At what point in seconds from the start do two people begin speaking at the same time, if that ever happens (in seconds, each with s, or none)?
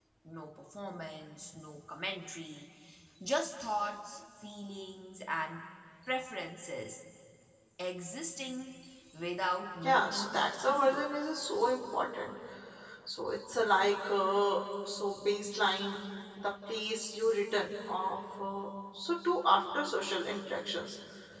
9.8 s